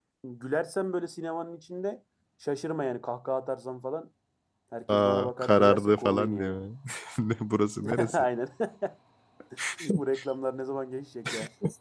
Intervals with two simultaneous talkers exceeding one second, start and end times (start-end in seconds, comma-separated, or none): 4.9-6.5